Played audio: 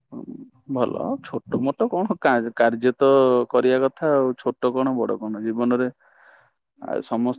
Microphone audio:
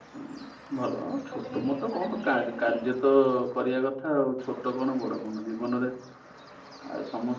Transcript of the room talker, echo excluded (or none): ଶୀତ ଦିନେ ଟିକେ ଥରେ ବୁଲେଇବାକୁ ନିଏ